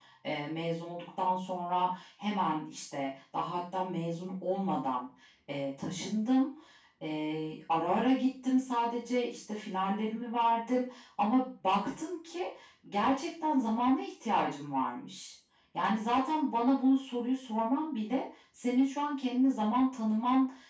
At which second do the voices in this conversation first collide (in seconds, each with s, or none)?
none